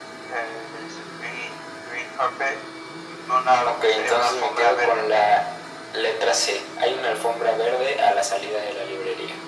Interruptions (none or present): present